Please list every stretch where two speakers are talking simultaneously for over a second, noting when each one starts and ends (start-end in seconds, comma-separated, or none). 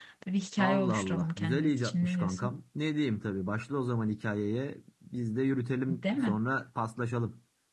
0.6-2.5